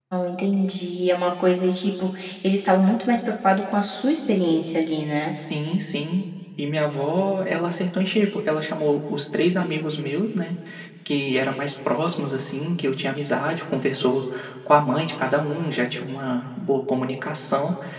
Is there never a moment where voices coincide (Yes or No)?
Yes